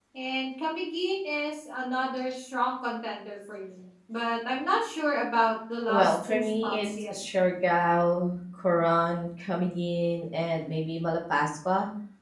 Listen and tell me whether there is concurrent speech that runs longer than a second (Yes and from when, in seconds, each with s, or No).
Yes, from 5.9 s